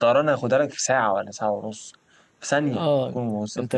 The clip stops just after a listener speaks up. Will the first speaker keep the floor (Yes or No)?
No